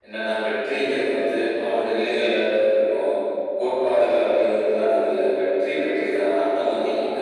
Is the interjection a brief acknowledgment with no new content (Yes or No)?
Yes